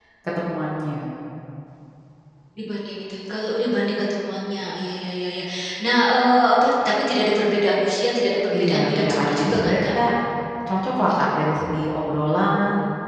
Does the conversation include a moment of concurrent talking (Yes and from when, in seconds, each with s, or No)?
Yes, from 8.5 s